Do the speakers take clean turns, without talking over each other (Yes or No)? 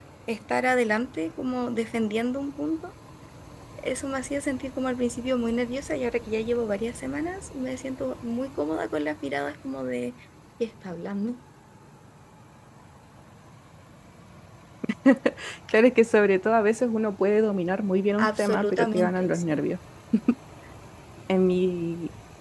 No